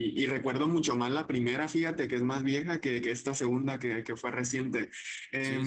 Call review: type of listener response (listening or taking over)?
listening